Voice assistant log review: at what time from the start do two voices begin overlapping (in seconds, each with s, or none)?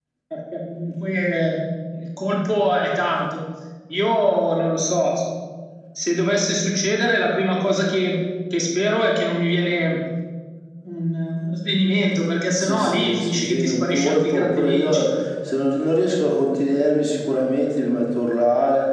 12.5 s